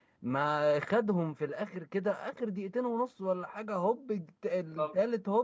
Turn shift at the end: No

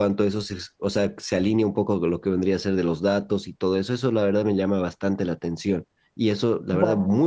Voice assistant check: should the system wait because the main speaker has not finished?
Yes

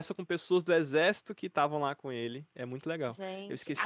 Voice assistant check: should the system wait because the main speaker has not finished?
No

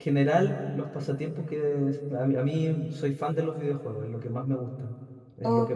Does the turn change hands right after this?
No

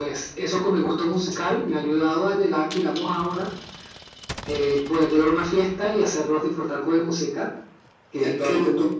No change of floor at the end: No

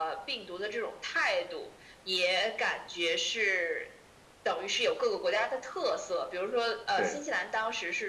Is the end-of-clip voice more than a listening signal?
No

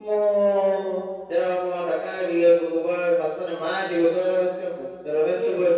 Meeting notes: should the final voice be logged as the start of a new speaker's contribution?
No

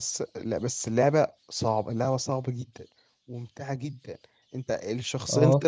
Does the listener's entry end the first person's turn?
No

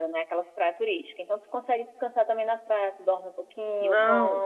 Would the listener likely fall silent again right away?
No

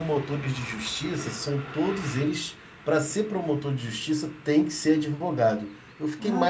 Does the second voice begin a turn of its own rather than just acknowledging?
Yes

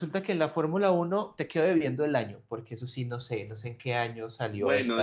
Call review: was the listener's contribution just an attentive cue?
No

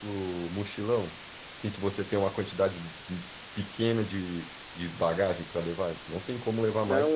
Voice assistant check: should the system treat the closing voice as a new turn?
Yes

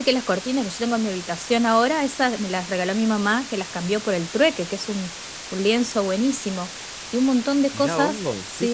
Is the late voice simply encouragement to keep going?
No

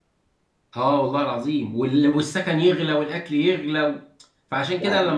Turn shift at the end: No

